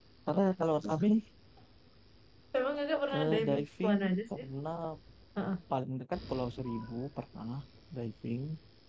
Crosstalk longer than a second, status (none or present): present